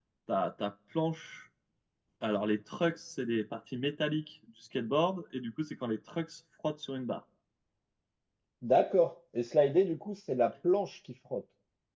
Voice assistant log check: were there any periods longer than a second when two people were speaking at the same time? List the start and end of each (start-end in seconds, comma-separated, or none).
none